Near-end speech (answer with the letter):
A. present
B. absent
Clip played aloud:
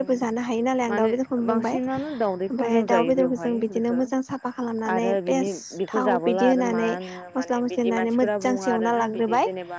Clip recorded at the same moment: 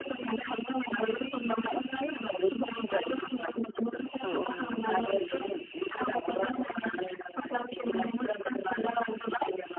A